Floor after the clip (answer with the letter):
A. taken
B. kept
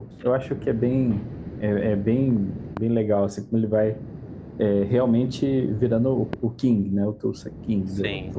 A